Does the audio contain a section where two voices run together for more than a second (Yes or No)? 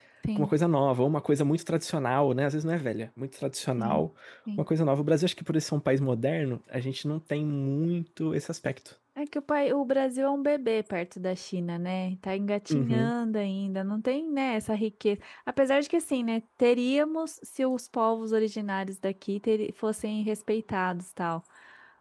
No